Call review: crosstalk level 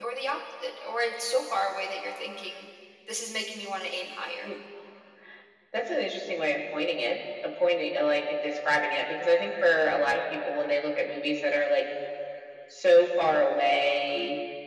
none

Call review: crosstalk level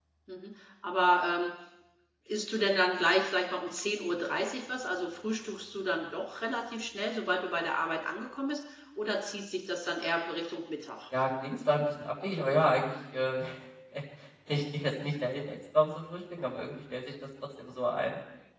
none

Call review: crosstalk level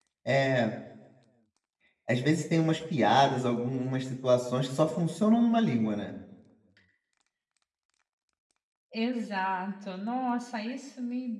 none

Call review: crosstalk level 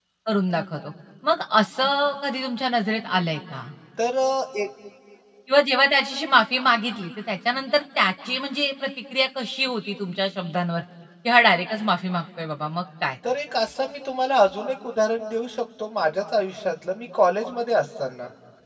none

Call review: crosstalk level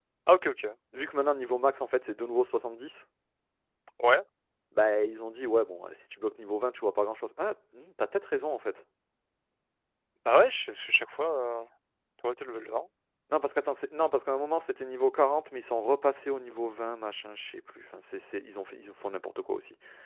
none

